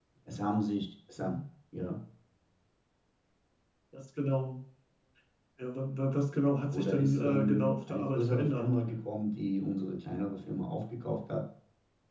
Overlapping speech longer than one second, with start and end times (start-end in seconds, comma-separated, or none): 6.7-8.7